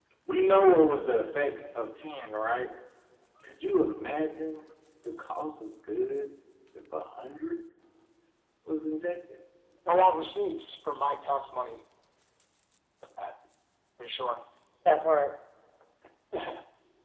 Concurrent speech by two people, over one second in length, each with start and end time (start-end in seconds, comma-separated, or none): none